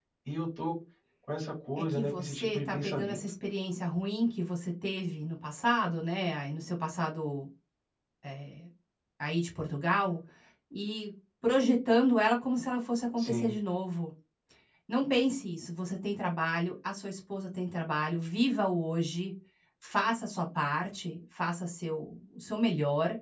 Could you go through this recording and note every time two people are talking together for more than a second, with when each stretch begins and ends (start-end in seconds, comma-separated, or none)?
1.8-3.2